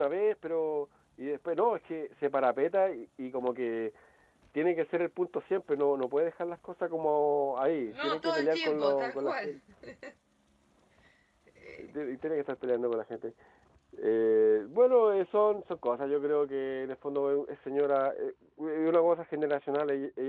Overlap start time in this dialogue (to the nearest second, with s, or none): 8 s